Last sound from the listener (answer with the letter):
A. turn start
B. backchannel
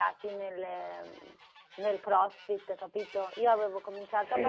B